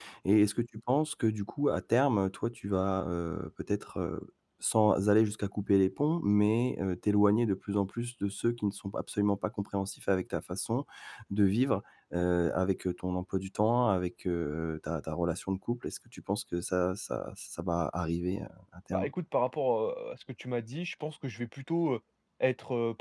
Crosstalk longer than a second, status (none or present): none